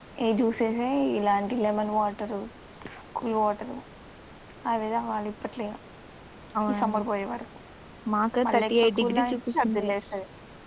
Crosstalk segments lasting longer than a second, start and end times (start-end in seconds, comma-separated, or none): 8.5-9.9